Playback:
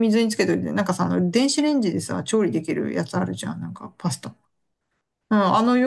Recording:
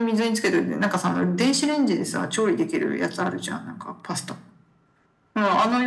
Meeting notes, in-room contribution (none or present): none